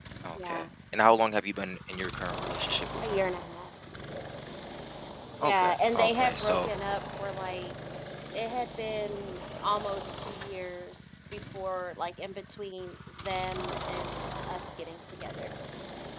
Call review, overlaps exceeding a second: present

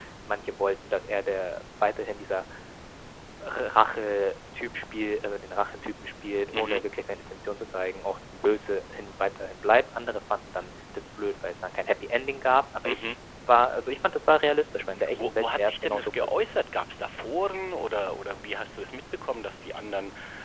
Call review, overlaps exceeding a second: present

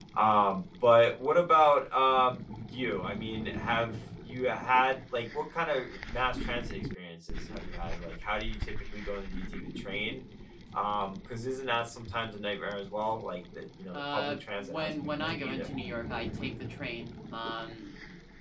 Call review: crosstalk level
present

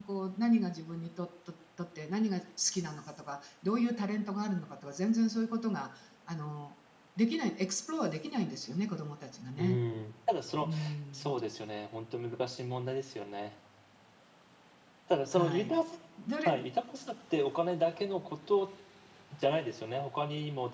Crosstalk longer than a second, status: none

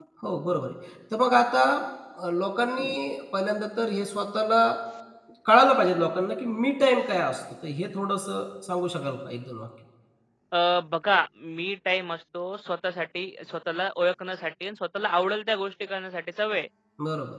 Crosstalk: none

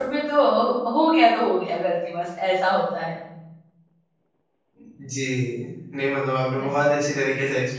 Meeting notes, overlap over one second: none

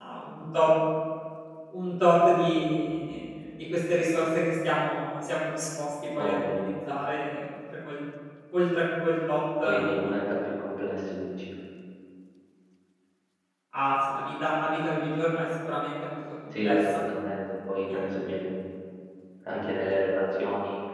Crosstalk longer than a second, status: none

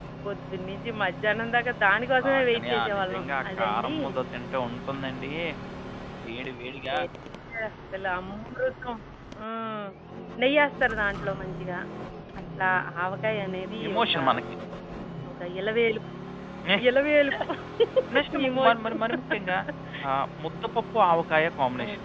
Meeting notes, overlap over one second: present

